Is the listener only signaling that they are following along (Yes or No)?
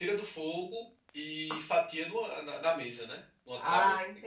No